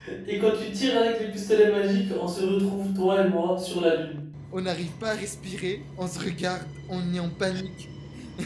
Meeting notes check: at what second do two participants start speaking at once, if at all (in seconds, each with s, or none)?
none